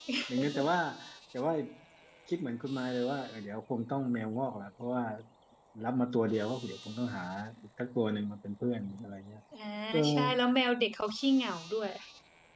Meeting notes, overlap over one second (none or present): none